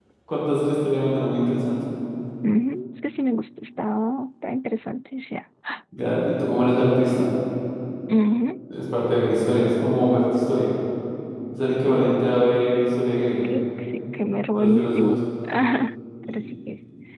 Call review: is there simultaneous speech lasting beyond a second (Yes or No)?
Yes